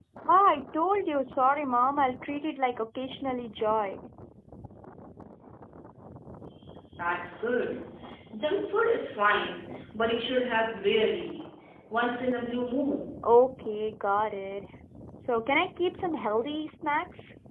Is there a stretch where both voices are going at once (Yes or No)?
No